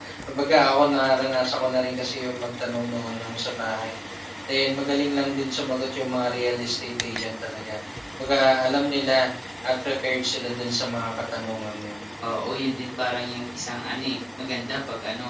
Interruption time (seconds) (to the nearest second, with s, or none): none